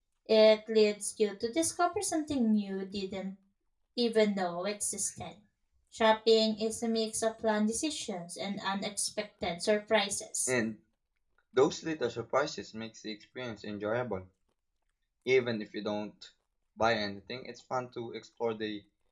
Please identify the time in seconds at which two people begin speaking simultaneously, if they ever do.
none

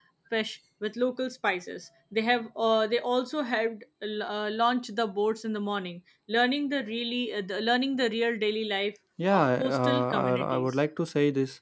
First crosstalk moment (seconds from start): 9.2 s

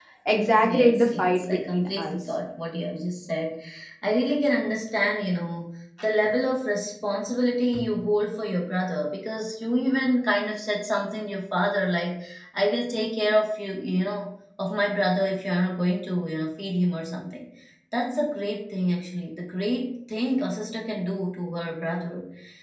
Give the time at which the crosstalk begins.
0.6 s

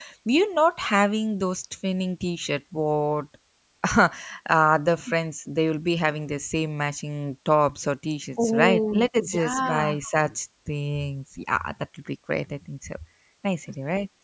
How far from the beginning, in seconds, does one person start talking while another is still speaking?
8.4 s

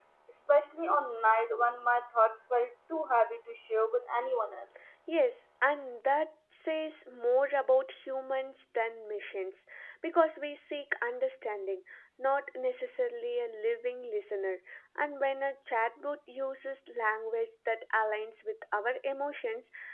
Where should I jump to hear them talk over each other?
none

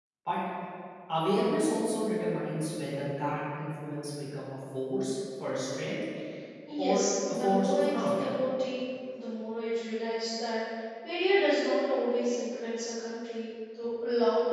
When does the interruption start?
6.8 s

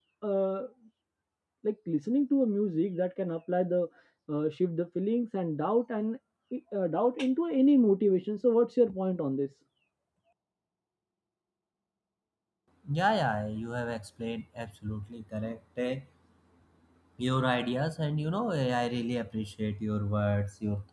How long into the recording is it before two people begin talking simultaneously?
none

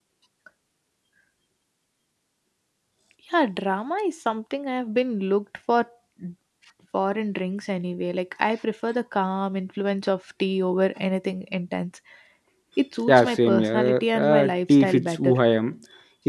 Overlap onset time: 13.1 s

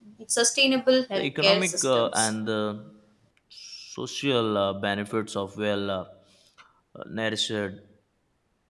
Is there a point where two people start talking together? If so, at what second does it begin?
1.1 s

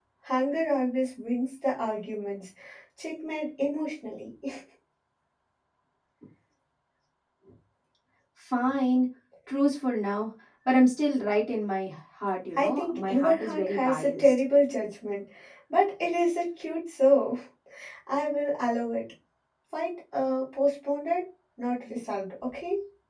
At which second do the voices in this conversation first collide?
12.6 s

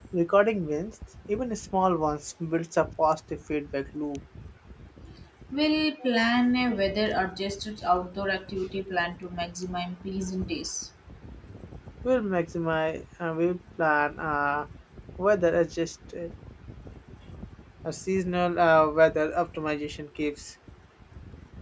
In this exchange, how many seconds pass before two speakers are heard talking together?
none

